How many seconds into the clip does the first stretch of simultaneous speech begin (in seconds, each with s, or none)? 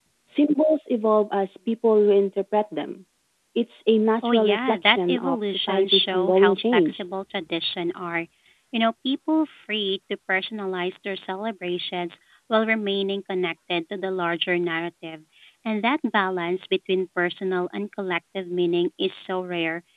4.2 s